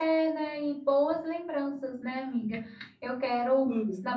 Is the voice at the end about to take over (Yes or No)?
No